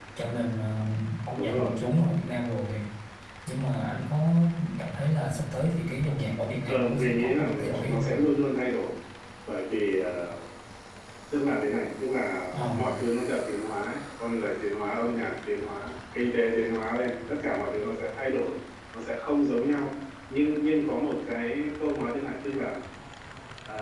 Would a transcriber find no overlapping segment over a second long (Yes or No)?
No